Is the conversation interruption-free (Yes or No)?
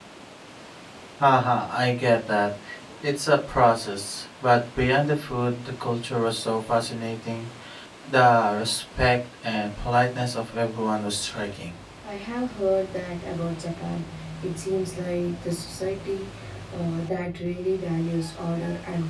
Yes